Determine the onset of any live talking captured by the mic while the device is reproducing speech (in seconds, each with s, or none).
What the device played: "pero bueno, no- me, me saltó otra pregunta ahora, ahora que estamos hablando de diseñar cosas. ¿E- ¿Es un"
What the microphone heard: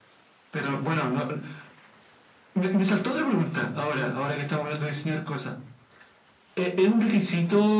none